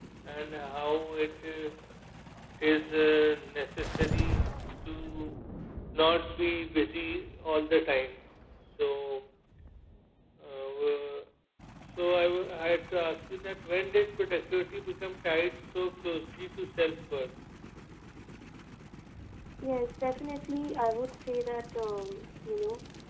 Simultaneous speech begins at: none

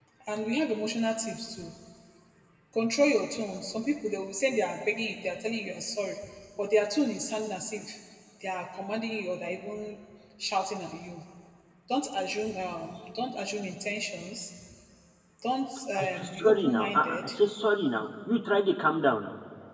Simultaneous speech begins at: 16.0 s

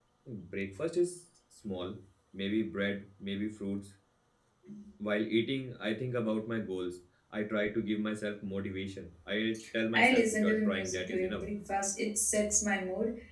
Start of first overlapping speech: 9.9 s

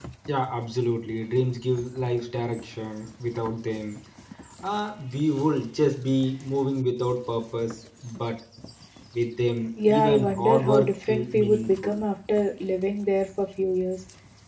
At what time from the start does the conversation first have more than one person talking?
9.9 s

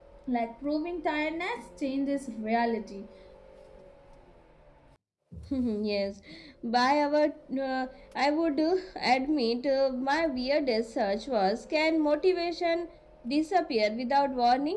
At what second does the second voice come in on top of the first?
none

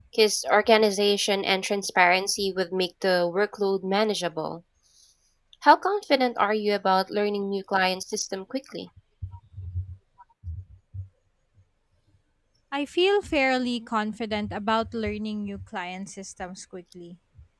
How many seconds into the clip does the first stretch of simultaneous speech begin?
none

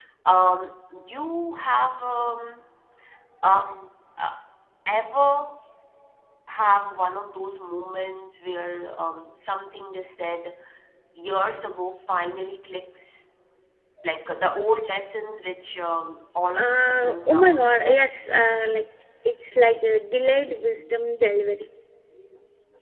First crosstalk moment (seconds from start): 16.6 s

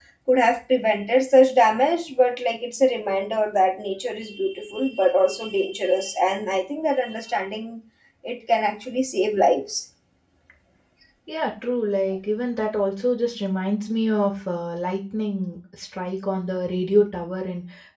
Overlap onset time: none

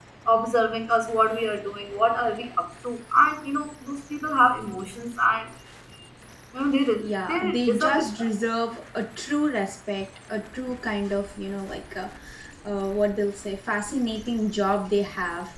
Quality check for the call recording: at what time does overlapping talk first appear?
6.9 s

